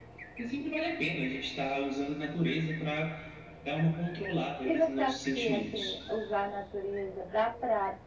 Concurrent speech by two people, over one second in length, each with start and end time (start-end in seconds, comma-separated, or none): 4.6-6.0